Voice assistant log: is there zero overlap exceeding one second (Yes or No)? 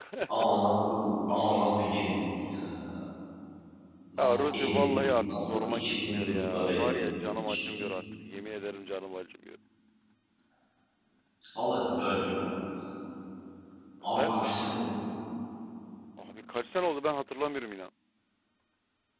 No